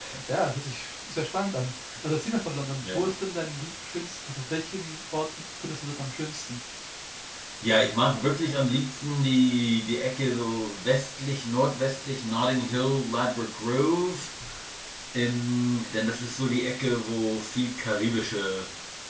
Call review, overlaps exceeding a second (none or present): none